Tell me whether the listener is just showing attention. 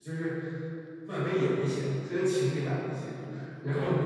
Yes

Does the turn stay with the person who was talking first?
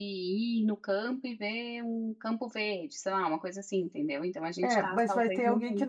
No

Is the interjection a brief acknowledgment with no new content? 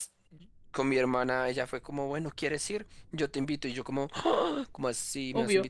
Yes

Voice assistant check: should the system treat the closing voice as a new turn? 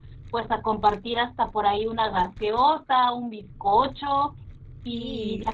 No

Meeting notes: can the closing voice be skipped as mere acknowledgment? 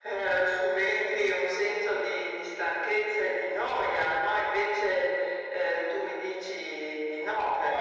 No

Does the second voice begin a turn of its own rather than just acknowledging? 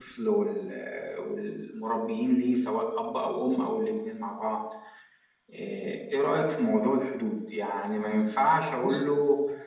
No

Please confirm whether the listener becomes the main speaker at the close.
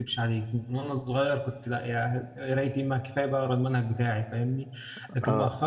No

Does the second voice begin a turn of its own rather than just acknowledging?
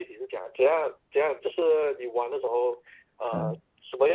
No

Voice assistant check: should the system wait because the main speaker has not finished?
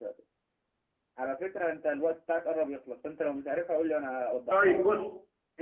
No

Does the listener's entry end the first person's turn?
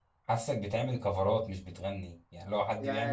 Yes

